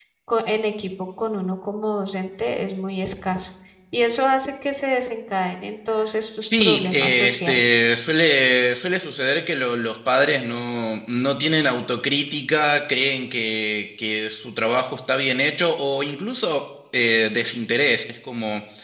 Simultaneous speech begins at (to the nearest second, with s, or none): 6 s